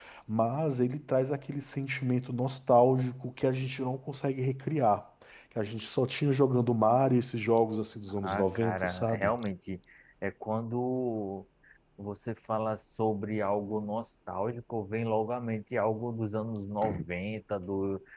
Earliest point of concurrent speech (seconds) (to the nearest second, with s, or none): 8 s